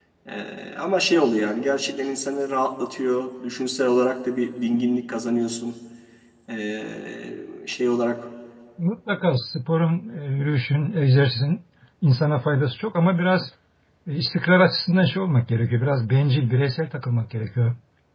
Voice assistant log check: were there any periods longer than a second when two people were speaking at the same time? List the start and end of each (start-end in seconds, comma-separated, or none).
none